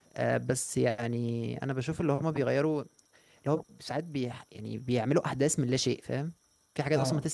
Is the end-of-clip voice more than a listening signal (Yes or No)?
No